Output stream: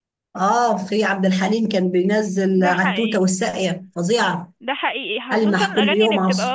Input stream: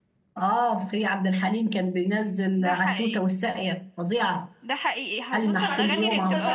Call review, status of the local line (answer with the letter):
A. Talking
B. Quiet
A